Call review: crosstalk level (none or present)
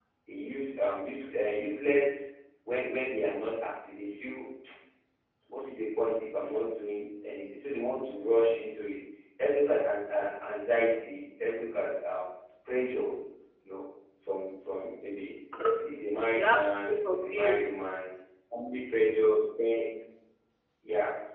present